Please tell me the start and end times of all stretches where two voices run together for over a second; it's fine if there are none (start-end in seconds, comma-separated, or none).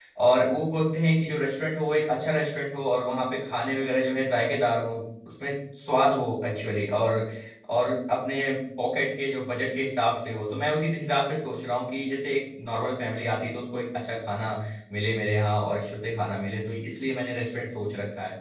none